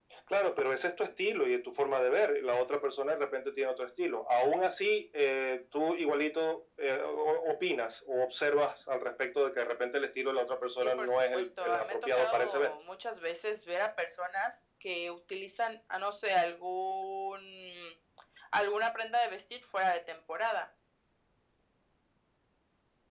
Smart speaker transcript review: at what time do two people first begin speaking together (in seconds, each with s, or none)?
10.8 s